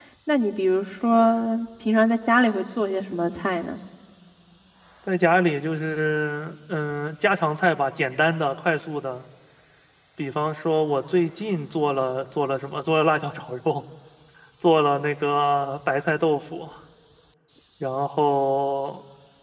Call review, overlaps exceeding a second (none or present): none